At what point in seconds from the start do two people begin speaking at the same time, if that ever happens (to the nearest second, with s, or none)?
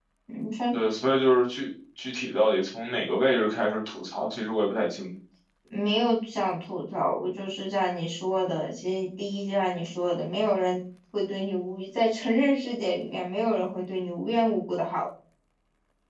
none